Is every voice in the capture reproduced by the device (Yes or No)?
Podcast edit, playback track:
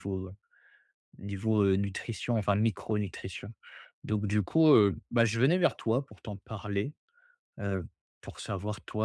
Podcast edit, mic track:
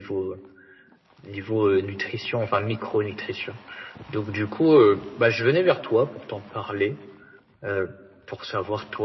Yes